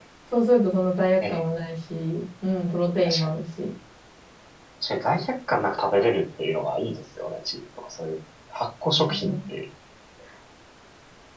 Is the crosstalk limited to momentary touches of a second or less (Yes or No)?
Yes